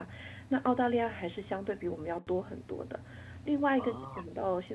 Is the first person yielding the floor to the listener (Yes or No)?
No